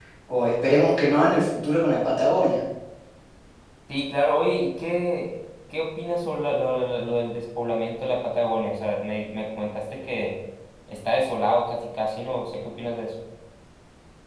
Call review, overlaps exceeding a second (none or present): none